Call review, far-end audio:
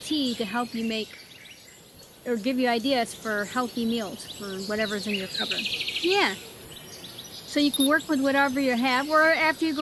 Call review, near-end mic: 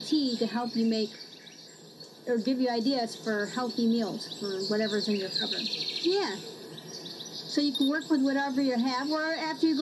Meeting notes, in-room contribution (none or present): none